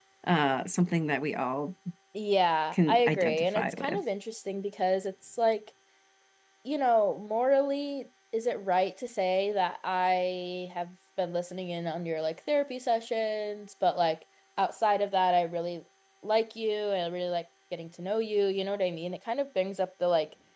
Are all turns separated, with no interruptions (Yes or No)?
No